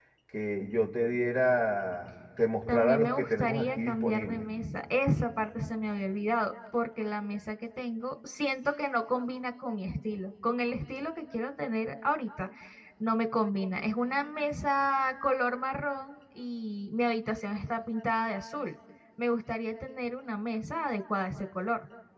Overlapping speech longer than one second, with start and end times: 2.7-4.5

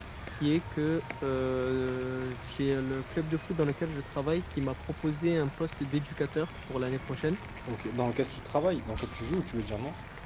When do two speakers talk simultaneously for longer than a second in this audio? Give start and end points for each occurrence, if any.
none

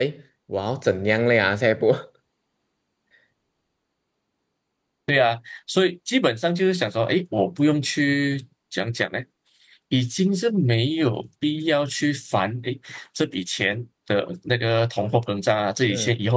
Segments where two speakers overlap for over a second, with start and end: none

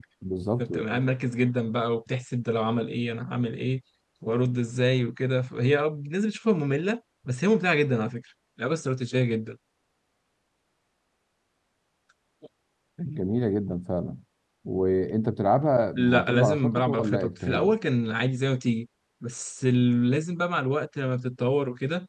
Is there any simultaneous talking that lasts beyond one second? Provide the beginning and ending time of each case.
16.0-17.7

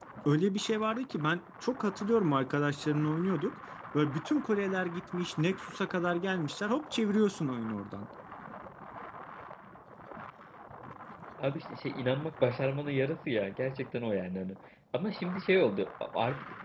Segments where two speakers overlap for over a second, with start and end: none

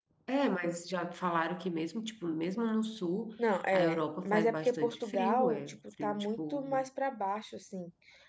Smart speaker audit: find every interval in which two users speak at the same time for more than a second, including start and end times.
3.7-6.7

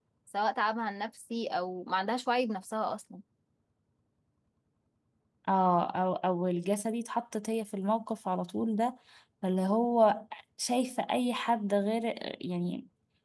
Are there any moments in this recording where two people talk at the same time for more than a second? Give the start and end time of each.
none

